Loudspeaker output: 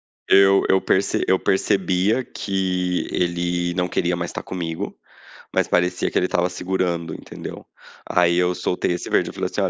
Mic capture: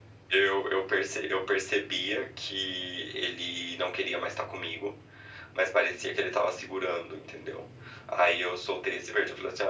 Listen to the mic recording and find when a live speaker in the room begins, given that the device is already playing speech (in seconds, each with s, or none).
none